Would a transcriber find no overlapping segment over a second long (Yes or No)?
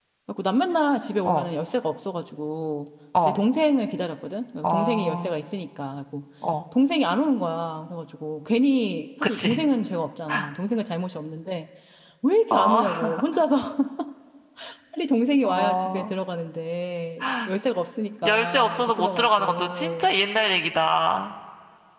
No